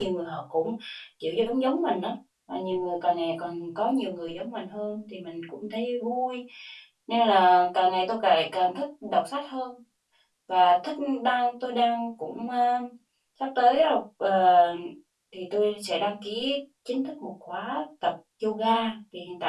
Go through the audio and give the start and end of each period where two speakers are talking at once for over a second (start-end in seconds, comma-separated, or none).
none